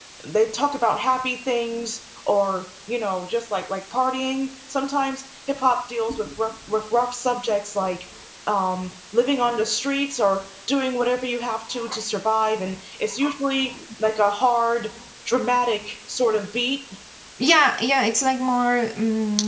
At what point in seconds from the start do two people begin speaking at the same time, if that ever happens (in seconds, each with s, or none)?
none